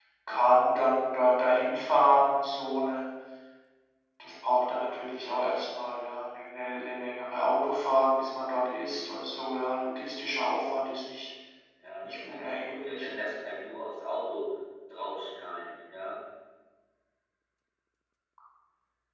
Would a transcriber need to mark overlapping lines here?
Yes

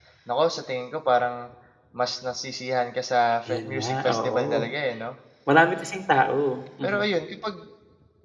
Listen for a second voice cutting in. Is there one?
Yes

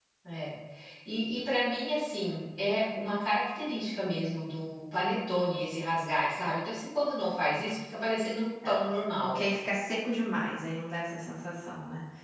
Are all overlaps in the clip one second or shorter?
Yes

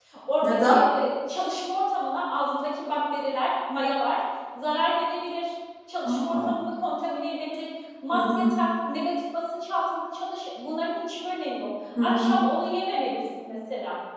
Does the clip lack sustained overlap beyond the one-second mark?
Yes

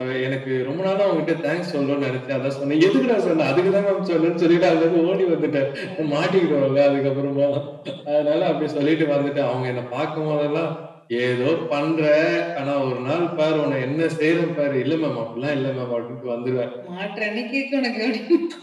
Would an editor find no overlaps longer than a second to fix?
Yes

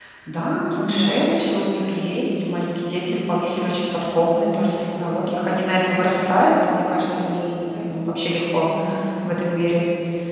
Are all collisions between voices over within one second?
No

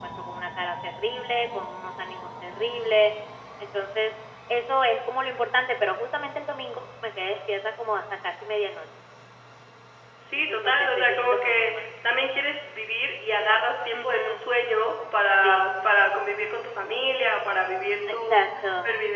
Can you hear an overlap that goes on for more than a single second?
Yes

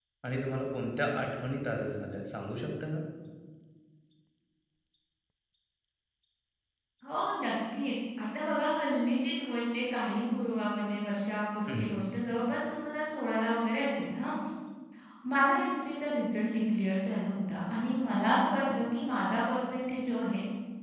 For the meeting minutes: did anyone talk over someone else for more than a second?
No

